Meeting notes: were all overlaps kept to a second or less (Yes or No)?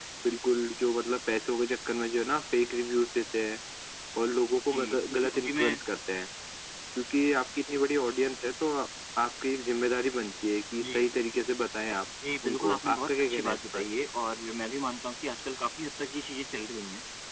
No